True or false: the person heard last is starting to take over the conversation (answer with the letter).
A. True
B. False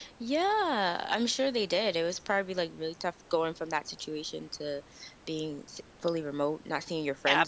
A